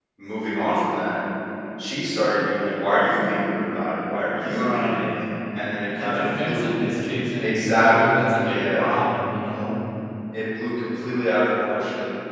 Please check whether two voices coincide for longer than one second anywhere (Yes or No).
Yes